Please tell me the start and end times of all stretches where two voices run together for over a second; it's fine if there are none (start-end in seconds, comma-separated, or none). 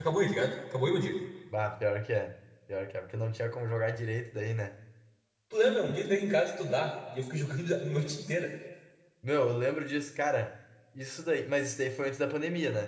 none